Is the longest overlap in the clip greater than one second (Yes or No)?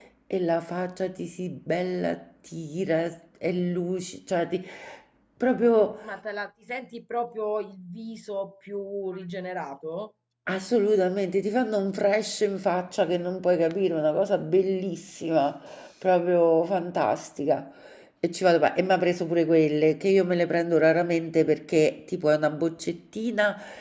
No